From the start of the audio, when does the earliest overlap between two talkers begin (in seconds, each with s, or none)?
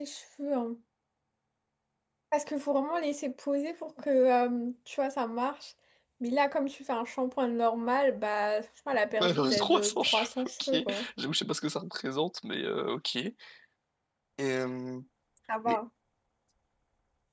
9.1 s